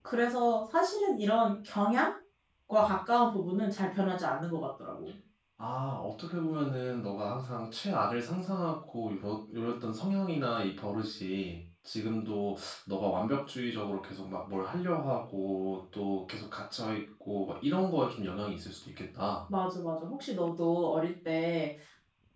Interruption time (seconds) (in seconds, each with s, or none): none